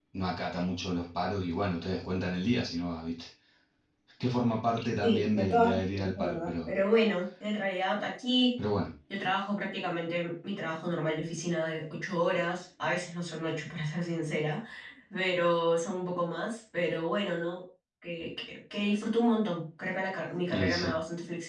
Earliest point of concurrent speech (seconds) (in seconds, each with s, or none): 5.0 s